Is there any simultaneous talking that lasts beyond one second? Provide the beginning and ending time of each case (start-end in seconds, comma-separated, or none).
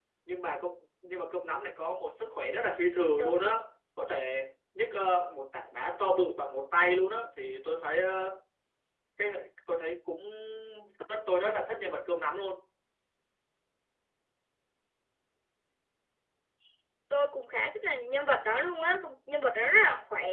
none